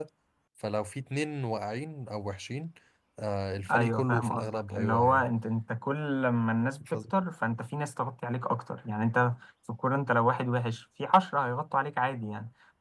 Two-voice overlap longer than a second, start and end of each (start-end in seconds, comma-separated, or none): 3.7-5.3